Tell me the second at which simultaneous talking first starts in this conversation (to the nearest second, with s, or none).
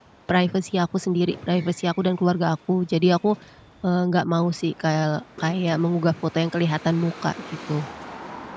none